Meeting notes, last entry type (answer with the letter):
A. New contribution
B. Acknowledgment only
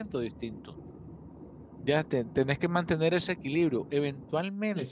A